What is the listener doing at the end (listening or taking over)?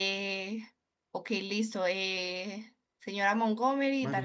listening